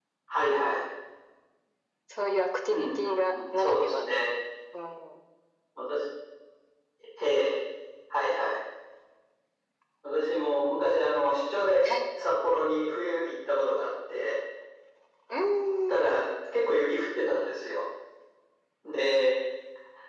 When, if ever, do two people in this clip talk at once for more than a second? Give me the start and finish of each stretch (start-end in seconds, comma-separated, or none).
2.7-4.0